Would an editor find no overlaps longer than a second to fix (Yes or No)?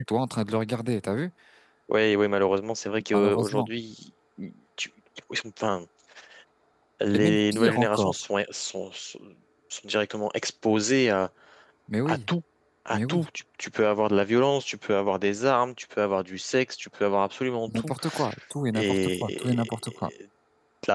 No